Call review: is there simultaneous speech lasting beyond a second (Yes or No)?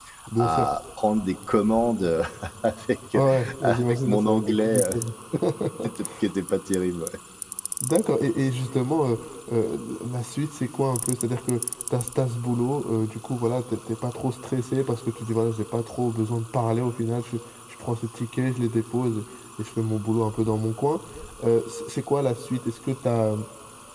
Yes